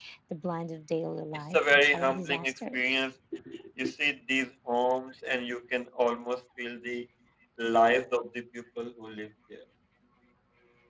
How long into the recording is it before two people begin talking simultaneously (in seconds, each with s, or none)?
1.5 s